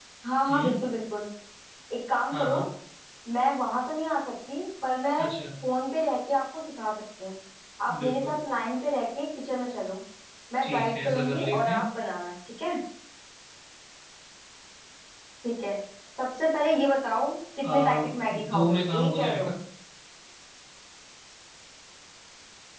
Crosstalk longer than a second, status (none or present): present